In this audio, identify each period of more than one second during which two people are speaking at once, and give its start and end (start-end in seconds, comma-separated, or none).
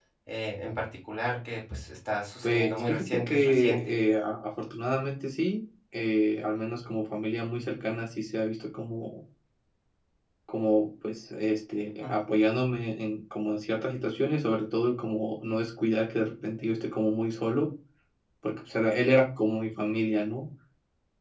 2.4-4.0